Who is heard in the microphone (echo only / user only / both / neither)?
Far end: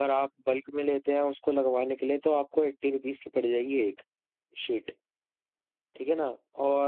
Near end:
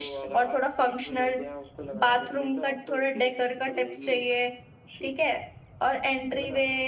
both